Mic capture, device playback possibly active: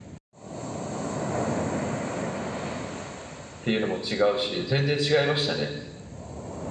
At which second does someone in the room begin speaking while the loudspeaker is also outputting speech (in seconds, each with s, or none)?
3.6 s